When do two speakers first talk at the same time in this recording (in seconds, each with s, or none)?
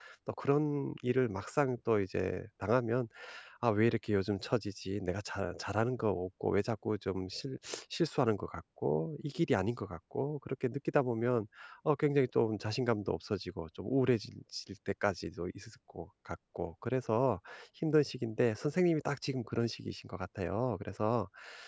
none